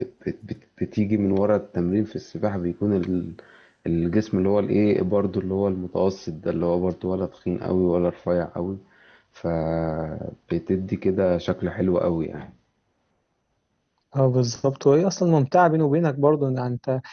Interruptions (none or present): none